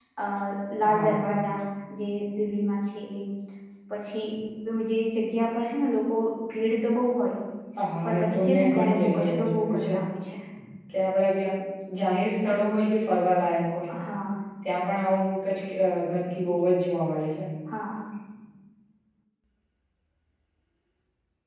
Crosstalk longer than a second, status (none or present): present